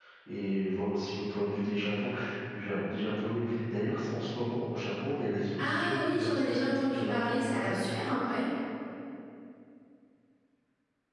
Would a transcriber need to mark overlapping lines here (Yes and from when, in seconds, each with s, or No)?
Yes, from 5.6 s